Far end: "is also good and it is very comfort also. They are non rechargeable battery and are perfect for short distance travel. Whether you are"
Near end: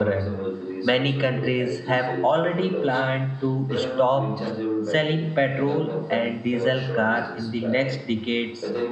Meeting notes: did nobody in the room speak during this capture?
No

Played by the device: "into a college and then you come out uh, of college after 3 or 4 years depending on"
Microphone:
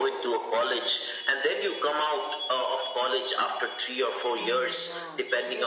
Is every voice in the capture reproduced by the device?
No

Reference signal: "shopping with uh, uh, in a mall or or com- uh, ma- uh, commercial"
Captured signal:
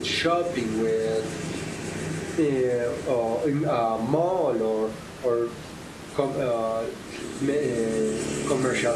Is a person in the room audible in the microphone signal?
No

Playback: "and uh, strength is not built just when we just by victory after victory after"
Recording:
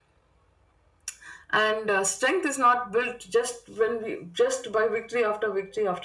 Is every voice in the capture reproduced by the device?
Yes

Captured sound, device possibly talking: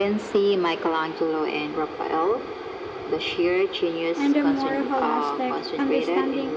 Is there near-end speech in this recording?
Yes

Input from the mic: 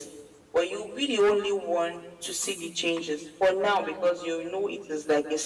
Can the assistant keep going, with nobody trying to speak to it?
Yes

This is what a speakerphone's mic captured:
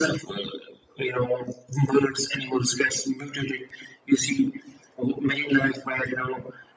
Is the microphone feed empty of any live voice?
Yes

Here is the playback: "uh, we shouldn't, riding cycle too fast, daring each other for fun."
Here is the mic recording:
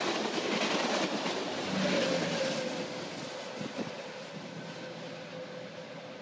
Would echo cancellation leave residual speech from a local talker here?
No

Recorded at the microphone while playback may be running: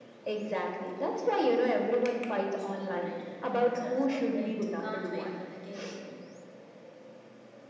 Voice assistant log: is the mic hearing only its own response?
No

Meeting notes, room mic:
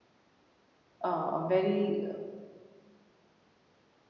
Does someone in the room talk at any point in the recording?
Yes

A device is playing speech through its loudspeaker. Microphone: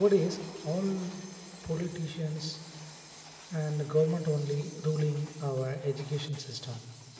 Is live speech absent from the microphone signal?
No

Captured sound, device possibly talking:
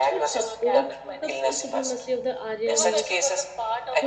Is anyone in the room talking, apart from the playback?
Yes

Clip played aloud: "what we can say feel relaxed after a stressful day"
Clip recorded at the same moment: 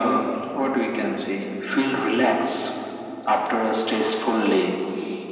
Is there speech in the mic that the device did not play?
No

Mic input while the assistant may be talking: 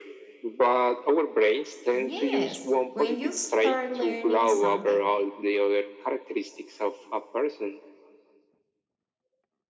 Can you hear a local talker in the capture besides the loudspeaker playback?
Yes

